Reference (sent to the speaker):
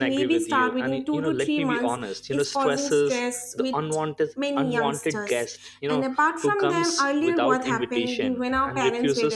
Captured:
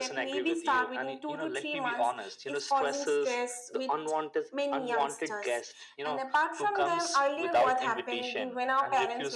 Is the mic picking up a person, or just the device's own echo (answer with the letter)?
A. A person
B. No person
B